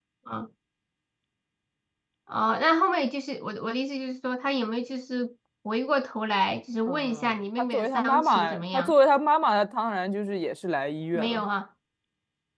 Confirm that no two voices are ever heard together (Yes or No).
No